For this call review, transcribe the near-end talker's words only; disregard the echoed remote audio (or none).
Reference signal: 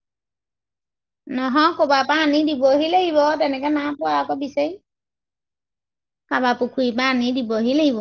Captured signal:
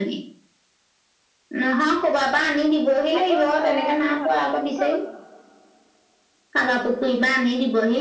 আকৌ ল'ৰায়ে আহি ভাত পানী দি থৈ গৈছেহি।